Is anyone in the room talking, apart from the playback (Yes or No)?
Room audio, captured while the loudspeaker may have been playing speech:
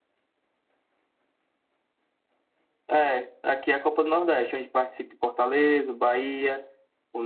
No